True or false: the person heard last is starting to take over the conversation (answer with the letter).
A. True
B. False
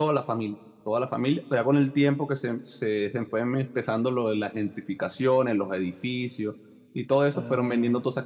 B